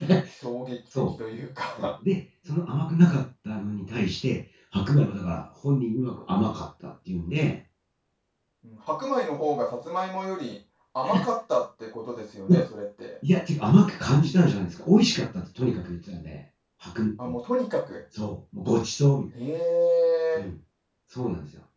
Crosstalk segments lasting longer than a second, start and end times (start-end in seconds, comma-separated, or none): none